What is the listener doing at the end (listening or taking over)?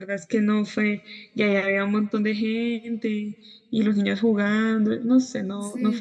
taking over